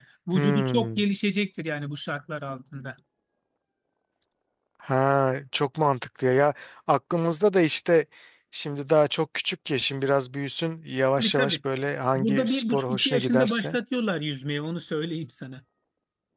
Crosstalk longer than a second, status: present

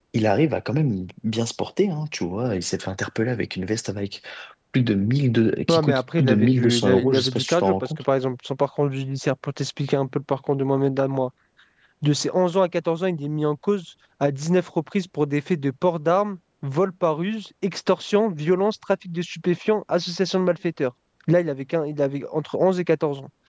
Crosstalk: present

